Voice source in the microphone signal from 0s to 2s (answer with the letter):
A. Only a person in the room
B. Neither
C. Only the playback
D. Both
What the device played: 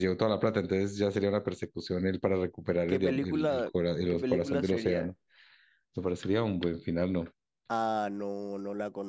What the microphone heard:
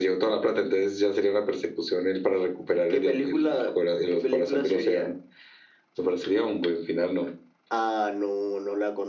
C